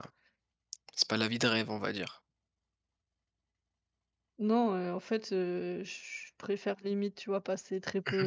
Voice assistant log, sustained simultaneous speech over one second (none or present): none